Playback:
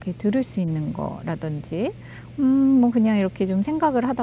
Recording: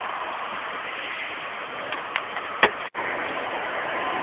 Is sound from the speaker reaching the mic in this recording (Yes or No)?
No